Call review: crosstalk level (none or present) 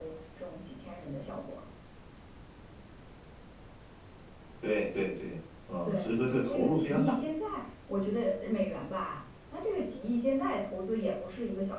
present